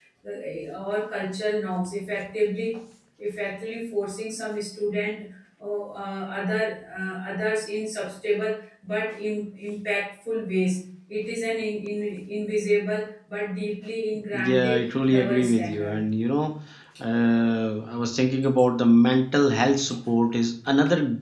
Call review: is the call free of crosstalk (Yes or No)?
No